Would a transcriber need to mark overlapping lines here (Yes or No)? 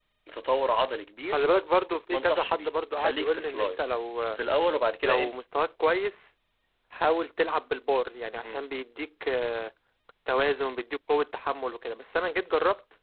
Yes